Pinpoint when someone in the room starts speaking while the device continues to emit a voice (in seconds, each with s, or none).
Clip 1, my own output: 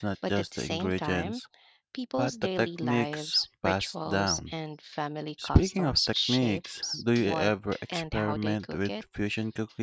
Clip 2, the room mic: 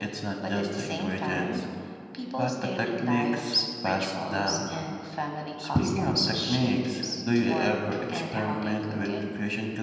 none